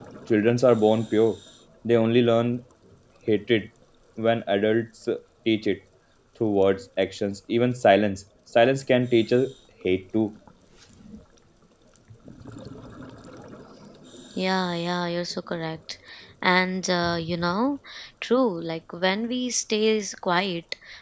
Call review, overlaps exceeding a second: none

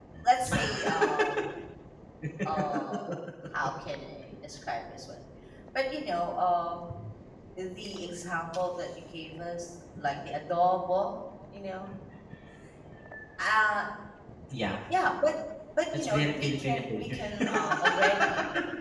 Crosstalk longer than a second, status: present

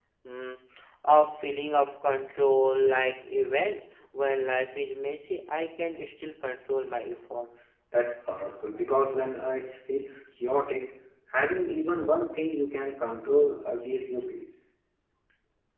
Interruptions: none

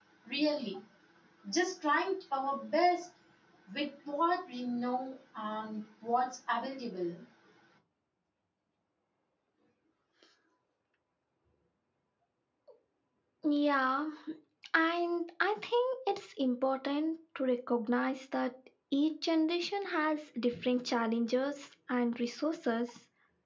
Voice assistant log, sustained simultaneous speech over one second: none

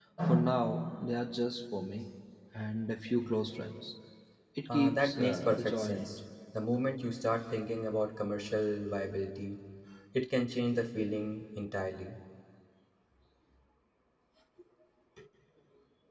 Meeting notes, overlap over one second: present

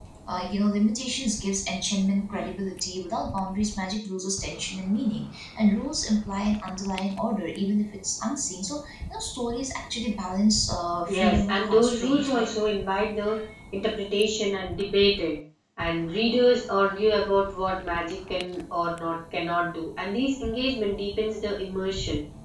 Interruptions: present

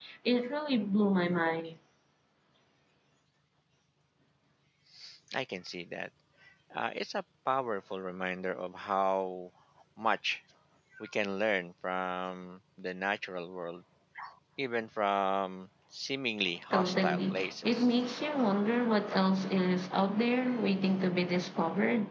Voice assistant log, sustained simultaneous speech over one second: present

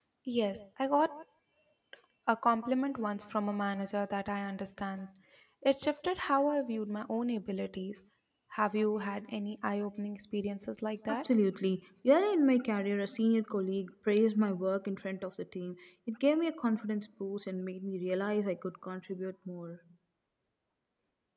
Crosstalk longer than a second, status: none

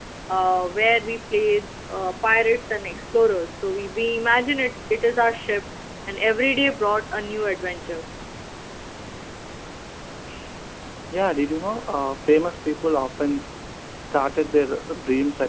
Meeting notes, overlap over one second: none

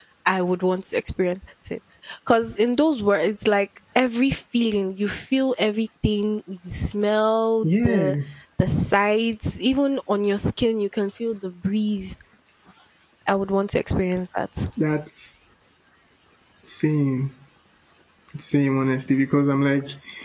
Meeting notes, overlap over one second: none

